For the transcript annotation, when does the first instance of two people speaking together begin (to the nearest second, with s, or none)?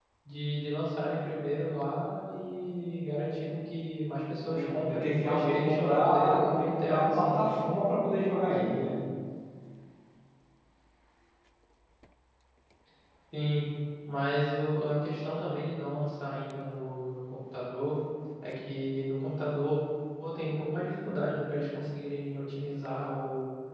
4 s